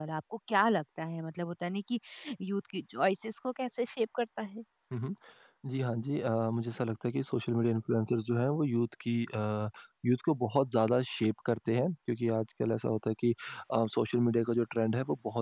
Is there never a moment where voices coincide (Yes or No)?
Yes